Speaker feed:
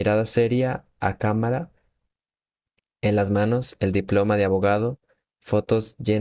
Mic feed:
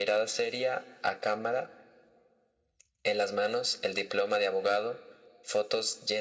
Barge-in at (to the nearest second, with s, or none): none